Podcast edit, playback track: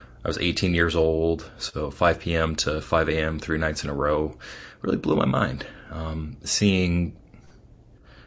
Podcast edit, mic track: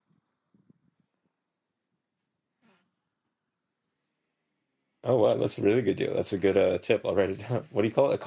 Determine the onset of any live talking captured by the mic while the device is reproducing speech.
5.0 s

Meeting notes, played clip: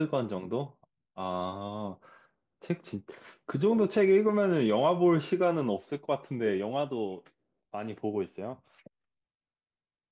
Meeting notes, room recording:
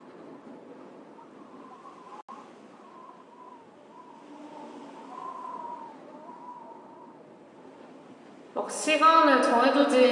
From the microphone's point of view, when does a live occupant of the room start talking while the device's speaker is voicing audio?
8.5 s

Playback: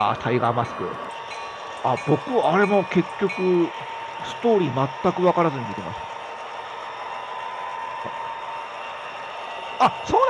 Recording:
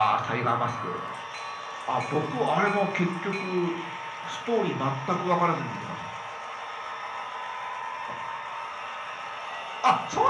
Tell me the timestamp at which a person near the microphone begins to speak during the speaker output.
none

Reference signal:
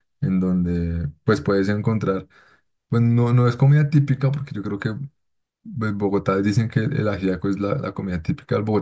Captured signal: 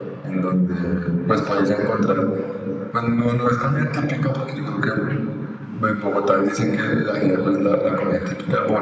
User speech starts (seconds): none

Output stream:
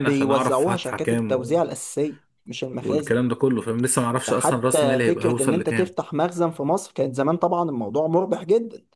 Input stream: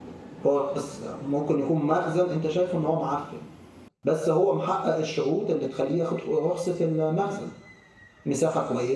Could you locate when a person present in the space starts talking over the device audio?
0.4 s

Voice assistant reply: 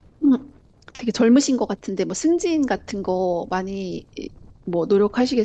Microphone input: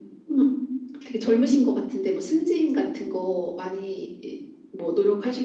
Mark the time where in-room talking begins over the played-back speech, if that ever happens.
none

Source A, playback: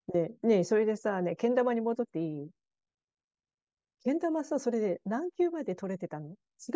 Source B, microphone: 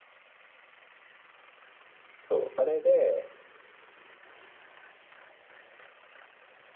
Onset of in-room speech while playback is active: 2.1 s

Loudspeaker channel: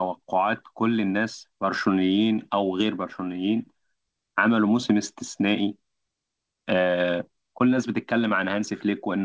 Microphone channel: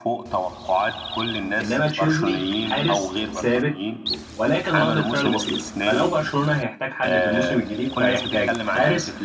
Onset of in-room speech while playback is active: 1.6 s

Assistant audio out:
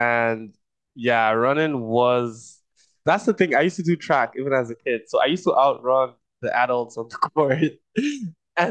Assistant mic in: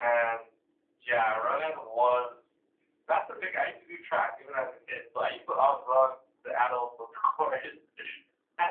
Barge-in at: none

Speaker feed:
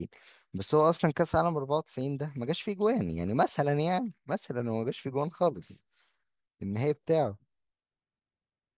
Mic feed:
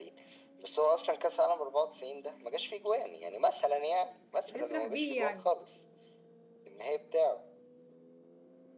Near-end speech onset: 4.5 s

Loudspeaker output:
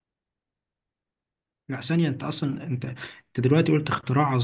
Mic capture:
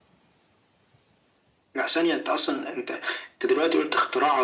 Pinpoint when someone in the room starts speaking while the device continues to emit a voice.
none

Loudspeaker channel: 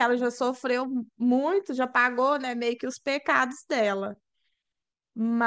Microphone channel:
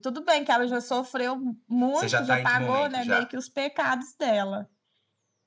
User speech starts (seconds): 1.9 s

